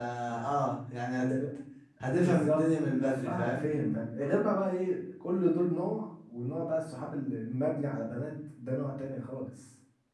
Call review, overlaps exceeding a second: present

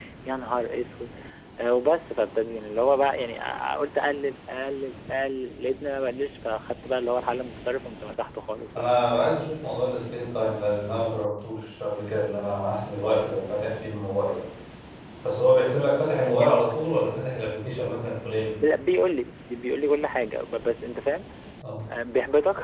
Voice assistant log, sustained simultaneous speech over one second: none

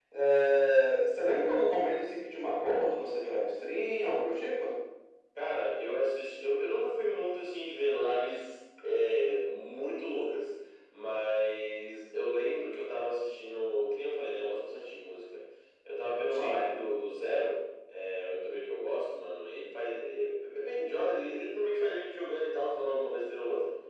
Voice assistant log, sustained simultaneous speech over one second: none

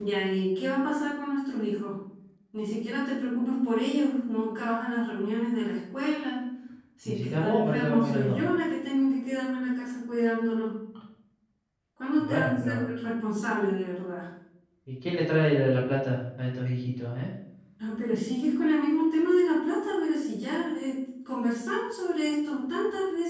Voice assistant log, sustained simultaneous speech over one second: present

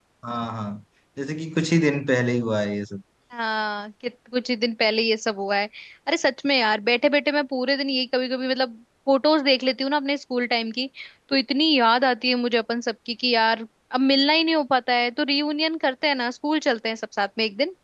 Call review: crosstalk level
none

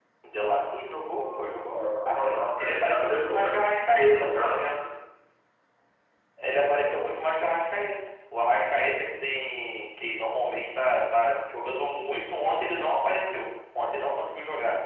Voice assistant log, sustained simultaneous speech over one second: present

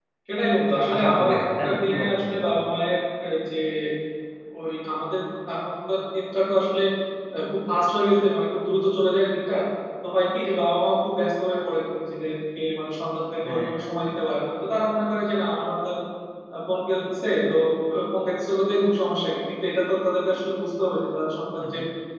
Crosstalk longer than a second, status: present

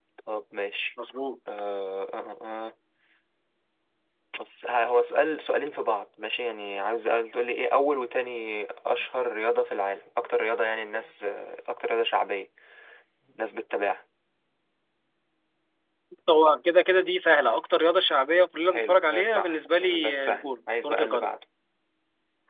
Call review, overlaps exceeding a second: present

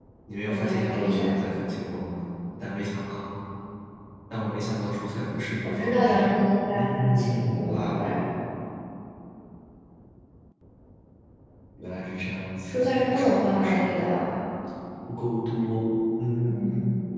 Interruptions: present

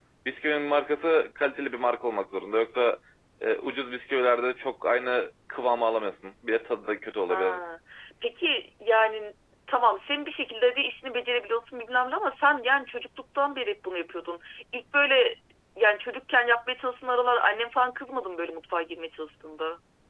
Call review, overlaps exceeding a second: none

